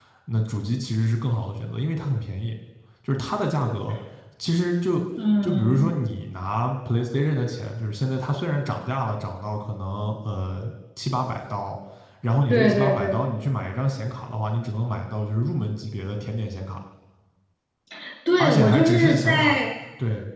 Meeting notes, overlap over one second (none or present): present